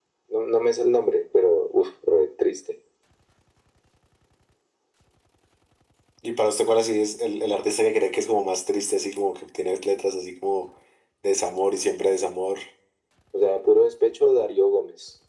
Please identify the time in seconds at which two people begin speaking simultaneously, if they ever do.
none

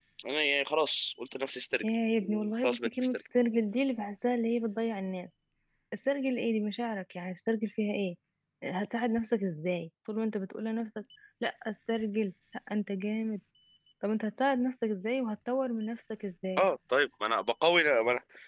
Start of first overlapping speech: 1.8 s

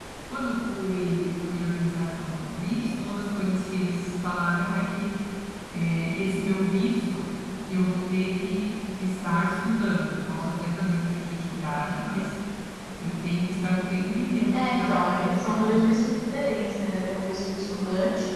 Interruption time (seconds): 14.5 s

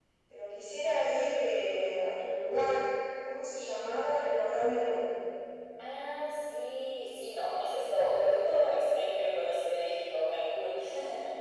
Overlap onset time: none

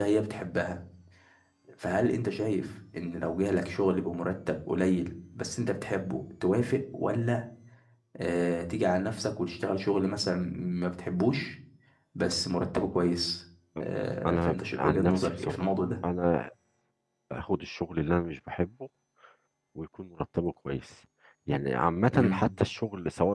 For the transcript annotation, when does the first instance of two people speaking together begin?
14.2 s

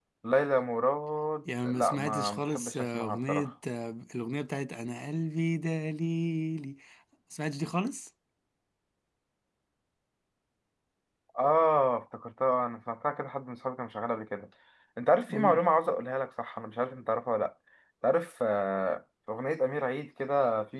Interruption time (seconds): 1.6 s

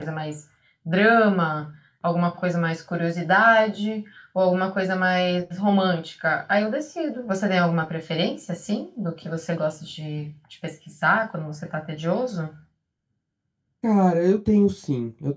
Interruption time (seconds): none

